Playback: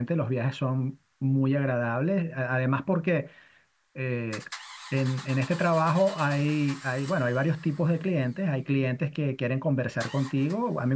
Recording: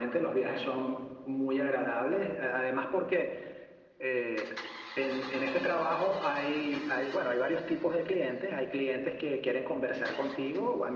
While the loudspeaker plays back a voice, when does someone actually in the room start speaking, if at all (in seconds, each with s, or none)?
none